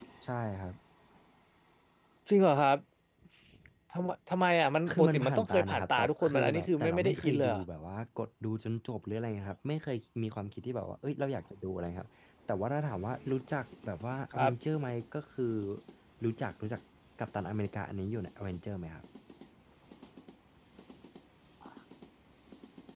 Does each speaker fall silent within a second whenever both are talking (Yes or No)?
No